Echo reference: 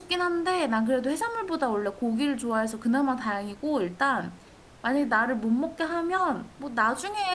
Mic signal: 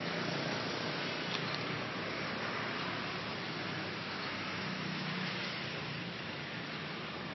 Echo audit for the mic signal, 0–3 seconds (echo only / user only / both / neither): neither